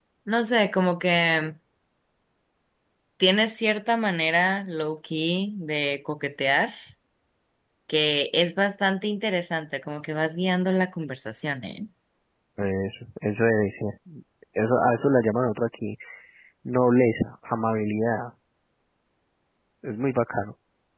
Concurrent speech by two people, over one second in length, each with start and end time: none

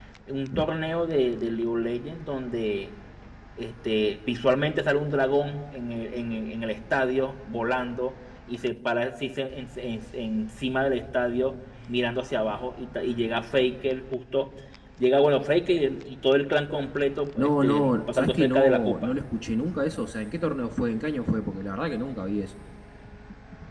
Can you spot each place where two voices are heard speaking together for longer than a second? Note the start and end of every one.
17.4-19.1

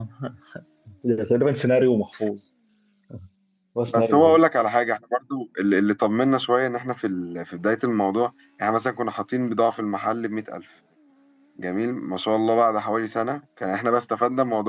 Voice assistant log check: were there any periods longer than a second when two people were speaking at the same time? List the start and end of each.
none

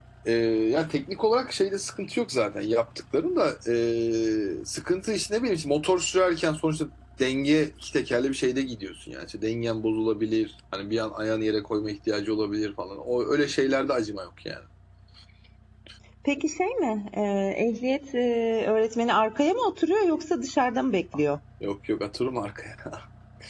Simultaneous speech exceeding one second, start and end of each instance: none

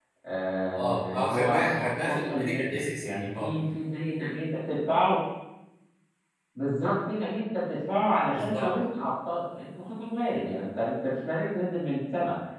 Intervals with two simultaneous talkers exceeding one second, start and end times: 0.8-3.5

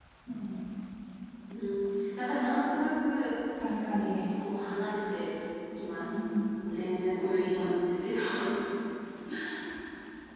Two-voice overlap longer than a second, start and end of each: none

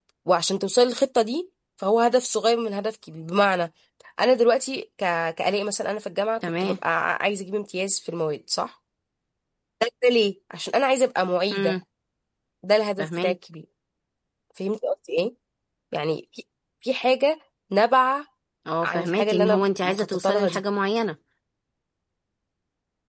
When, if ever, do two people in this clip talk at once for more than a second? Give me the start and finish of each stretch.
18.8-20.6

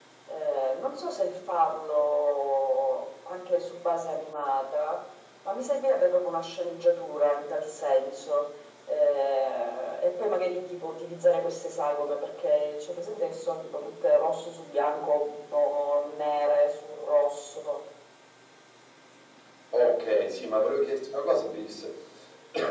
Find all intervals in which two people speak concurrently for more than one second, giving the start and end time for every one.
none

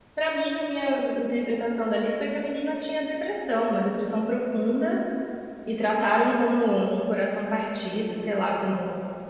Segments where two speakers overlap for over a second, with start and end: none

